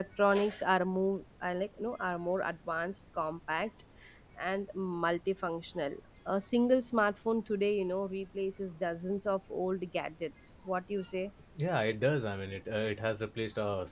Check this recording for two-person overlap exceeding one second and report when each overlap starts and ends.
none

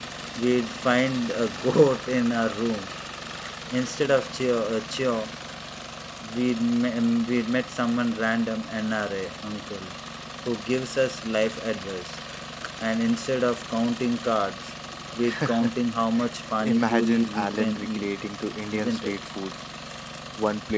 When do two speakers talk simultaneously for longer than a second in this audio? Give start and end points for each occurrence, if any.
16.6-18.1

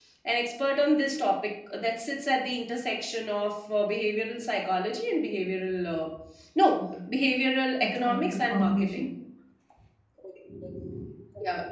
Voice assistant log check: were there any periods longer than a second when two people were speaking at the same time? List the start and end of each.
7.8-9.1

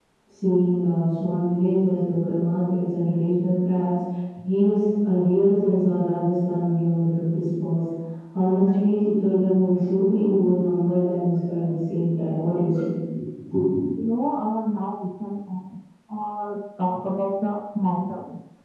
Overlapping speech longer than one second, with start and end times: none

